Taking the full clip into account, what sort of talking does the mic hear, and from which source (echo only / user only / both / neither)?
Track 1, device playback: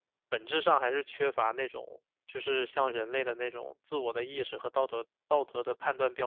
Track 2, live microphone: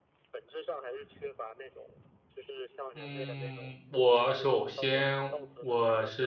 both